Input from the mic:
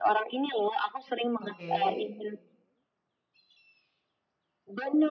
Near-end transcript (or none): Oke.